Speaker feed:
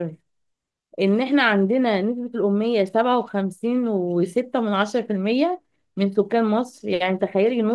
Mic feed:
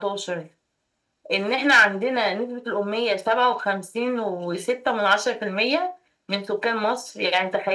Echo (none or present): present